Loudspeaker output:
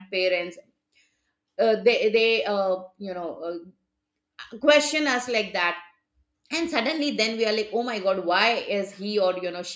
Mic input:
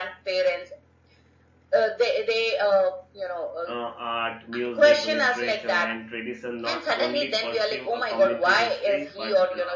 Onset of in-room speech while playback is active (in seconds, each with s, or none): 3.7 s